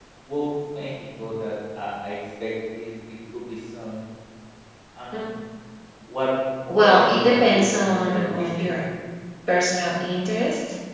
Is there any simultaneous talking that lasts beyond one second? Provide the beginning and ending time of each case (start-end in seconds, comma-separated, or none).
6.8-8.6